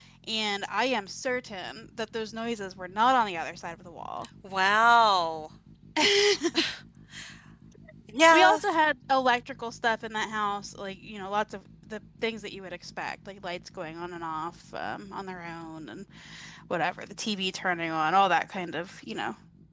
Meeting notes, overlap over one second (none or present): none